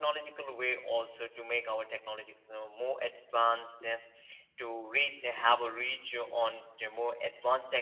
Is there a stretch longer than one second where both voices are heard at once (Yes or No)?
No